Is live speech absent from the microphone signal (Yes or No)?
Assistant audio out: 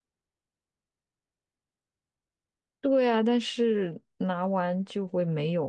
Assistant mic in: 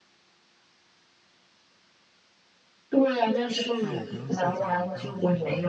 No